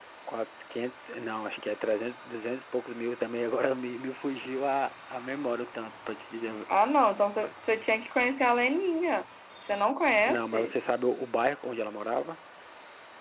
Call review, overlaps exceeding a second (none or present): none